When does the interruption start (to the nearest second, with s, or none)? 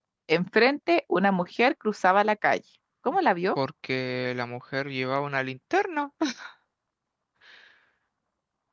none